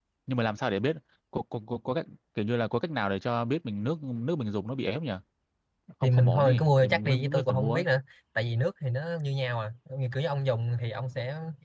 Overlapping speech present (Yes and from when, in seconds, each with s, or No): Yes, from 6.0 s